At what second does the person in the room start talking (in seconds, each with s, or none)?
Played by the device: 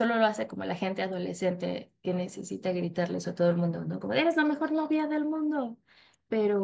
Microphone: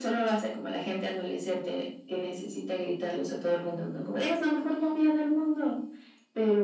none